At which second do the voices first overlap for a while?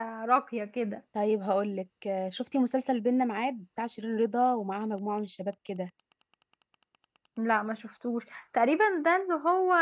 none

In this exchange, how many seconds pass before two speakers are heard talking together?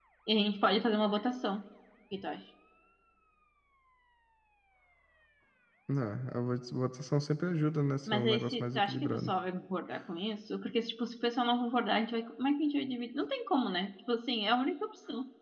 8.1 s

